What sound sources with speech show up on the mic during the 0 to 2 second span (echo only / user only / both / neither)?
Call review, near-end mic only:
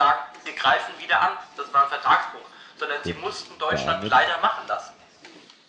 echo only